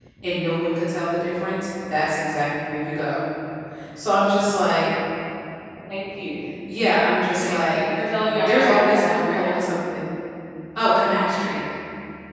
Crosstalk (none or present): present